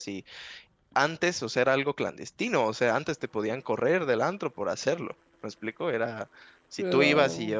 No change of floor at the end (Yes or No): Yes